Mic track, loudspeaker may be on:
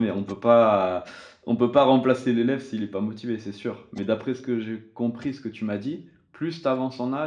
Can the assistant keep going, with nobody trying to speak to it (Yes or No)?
No